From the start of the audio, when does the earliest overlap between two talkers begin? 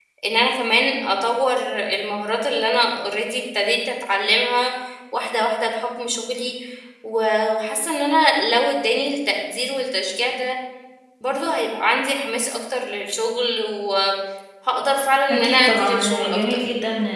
15.3 s

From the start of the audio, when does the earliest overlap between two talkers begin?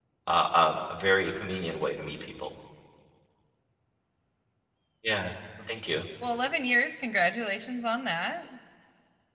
none

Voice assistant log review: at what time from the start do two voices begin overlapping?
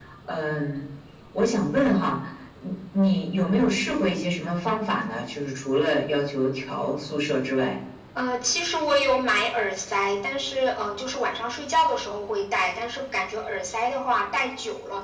none

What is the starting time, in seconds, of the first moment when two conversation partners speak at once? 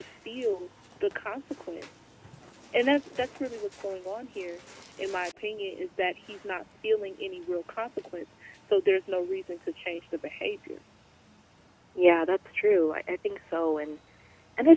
none

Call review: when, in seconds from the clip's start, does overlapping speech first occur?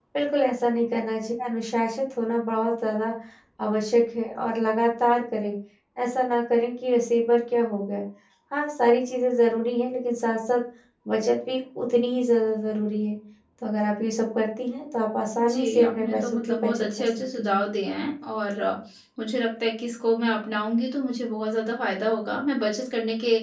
15.4 s

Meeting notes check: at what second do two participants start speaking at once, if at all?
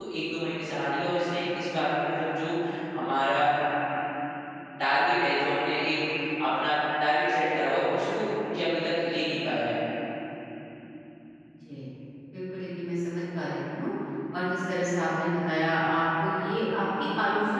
none

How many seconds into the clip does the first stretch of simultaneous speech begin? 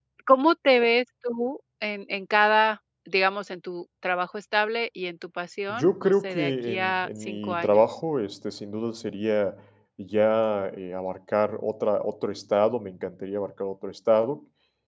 5.7 s

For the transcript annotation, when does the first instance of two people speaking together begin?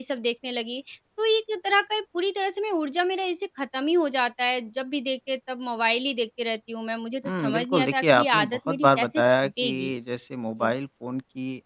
7.2 s

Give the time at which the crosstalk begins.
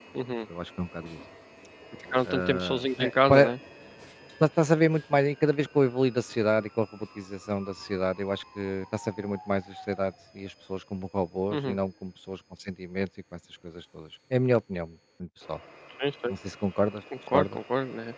2.2 s

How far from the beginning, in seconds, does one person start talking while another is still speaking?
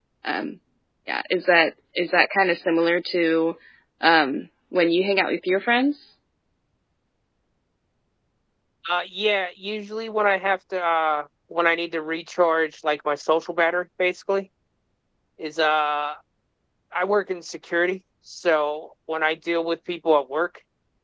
none

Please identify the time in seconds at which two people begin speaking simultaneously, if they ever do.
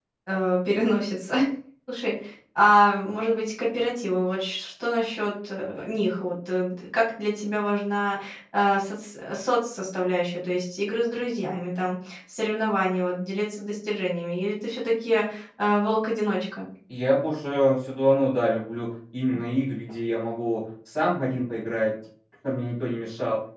none

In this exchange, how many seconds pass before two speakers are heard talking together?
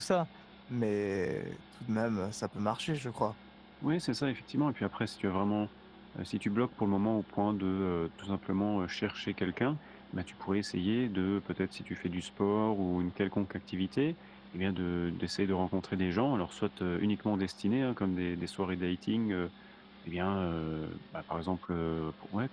none

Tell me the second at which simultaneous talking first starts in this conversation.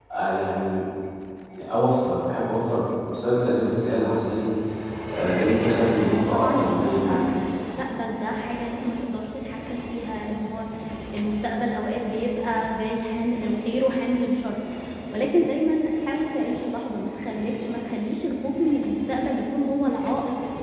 6.0 s

